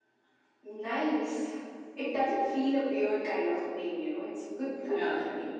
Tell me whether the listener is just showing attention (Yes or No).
No